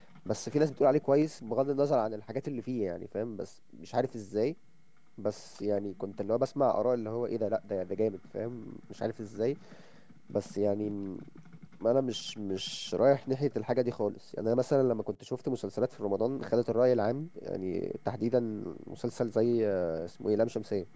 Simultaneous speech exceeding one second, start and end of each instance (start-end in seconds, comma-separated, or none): none